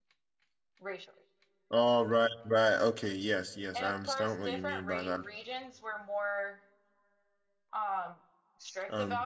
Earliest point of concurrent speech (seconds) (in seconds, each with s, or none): 3.7 s